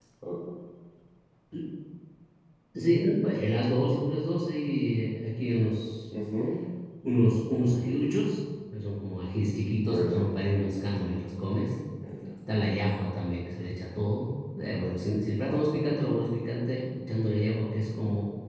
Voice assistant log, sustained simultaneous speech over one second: none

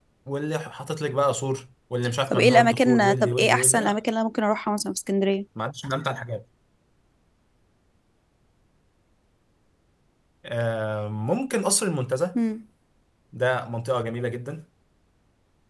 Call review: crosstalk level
present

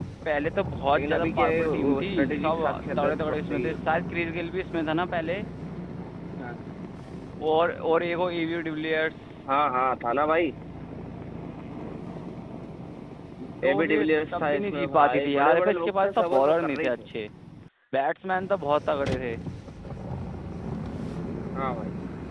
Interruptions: present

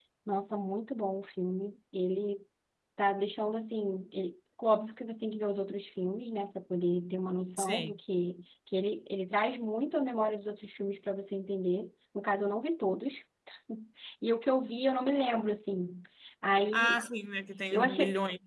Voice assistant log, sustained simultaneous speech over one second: none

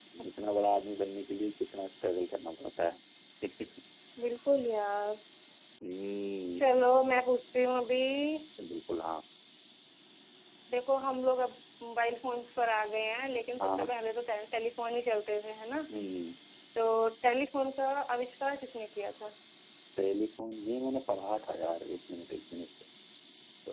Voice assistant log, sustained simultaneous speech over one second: none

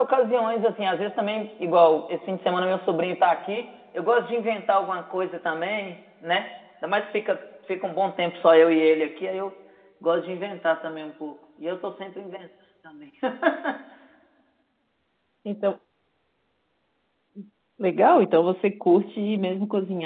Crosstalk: none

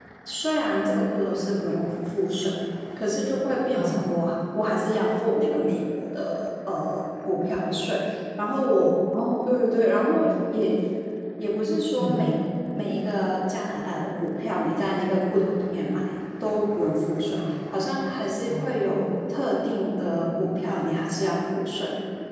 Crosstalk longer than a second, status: none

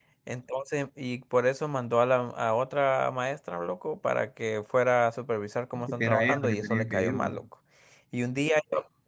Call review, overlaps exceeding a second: present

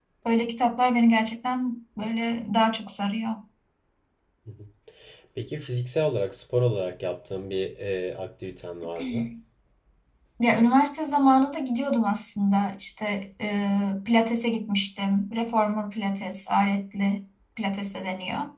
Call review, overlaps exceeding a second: none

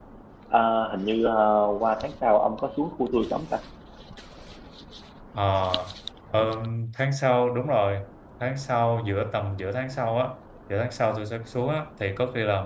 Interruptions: none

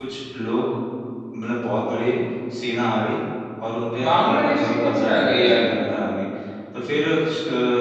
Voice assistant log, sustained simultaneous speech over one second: present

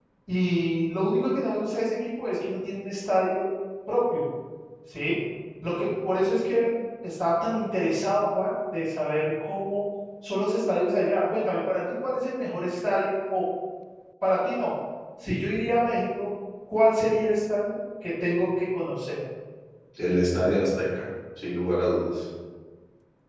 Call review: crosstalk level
none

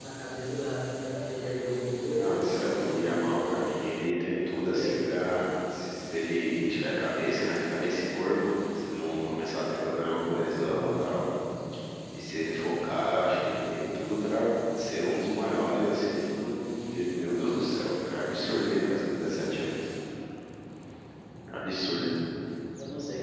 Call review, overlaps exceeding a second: present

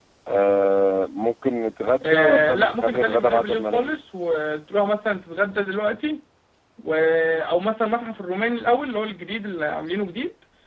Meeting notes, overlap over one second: present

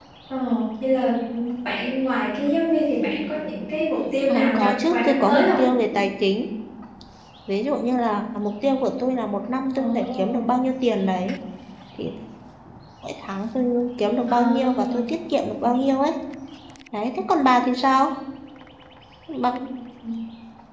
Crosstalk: present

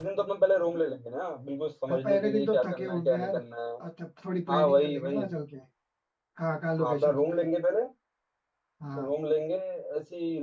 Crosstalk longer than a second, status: present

